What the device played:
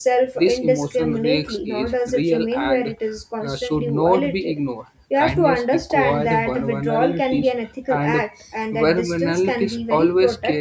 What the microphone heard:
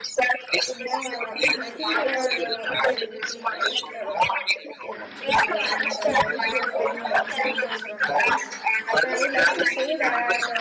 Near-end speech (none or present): present